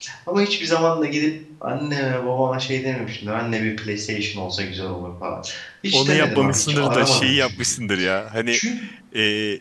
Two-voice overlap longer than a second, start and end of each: 5.9-7.8

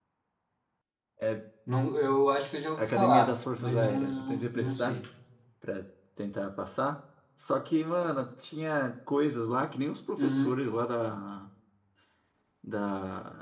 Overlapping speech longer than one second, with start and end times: 2.8-5.0

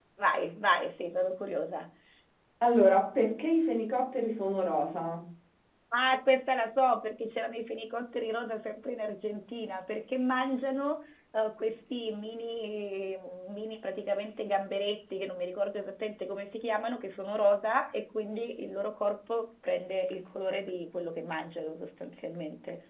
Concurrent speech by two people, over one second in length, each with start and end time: none

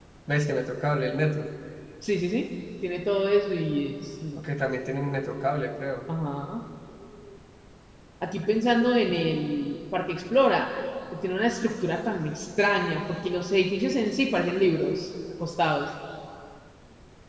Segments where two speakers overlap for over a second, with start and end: none

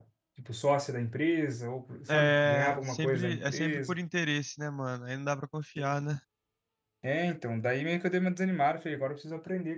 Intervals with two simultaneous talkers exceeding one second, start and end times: 2.1-4.0

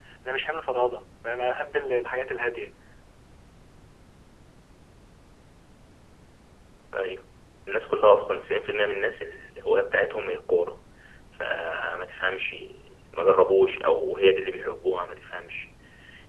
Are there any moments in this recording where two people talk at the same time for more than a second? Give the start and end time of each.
none

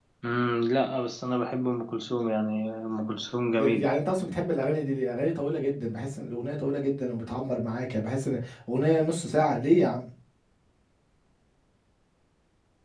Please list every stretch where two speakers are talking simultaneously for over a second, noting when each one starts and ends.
none

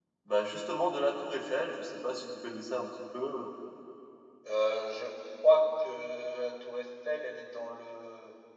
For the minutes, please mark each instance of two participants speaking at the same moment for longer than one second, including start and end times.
none

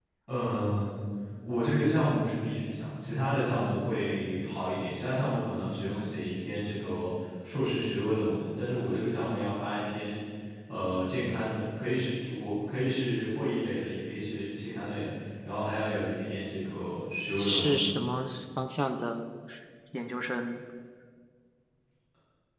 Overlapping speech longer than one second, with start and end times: none

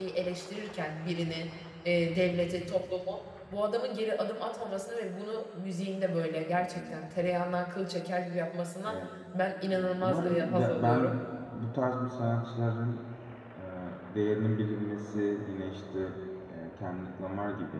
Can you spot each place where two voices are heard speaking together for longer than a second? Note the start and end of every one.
9.7-11.2

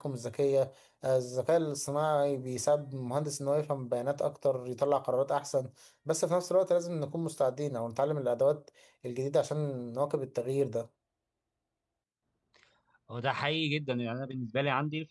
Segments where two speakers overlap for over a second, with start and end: none

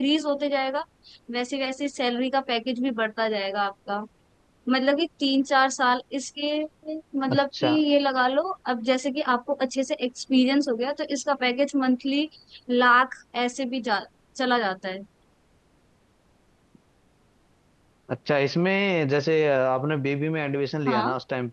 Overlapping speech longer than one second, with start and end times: none

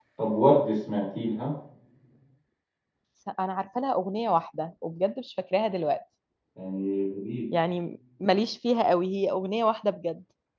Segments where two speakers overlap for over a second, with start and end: none

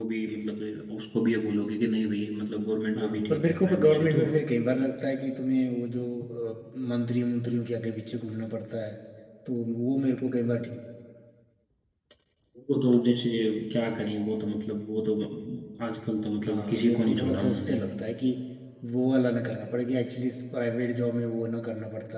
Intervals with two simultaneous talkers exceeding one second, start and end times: 3.0-4.2, 16.4-17.8

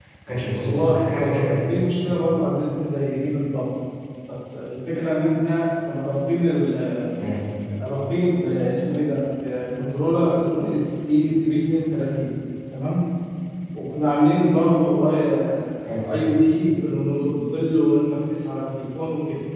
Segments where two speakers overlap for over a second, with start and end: 0.5-1.8

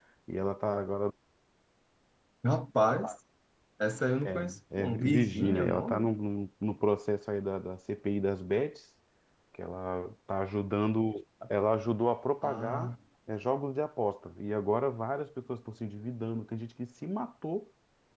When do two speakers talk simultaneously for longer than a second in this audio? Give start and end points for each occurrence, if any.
4.2-6.1

